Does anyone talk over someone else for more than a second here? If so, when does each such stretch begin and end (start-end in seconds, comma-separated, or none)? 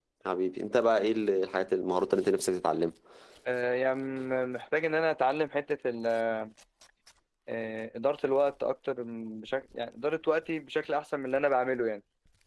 none